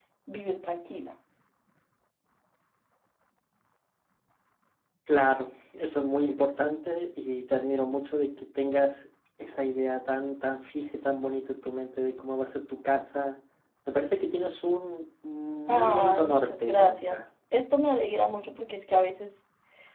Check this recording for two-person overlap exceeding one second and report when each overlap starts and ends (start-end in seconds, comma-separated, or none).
15.7-17.2